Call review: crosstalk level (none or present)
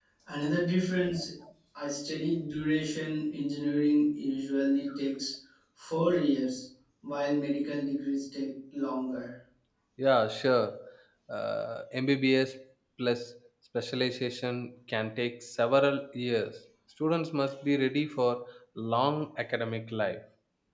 none